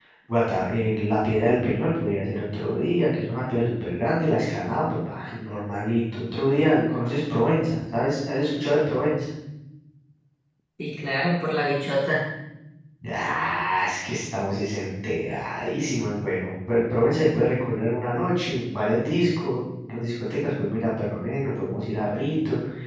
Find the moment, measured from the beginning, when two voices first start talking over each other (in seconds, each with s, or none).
none